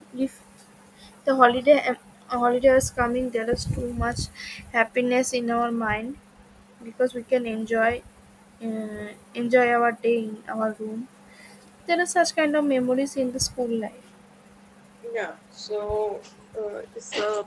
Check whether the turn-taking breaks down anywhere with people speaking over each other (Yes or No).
No